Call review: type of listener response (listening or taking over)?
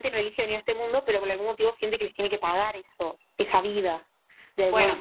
taking over